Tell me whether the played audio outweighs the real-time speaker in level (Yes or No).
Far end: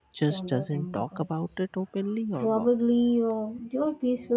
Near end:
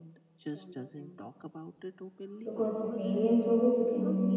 No